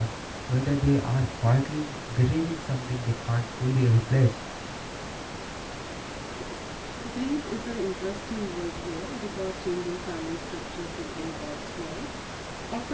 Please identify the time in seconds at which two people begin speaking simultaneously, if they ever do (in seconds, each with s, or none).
none